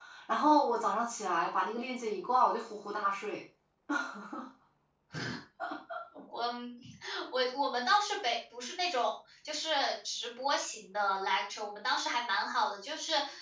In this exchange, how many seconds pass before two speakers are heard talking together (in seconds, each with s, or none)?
none